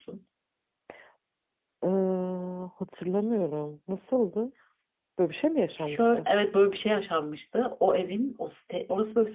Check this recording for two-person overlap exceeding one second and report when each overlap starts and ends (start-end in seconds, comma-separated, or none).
none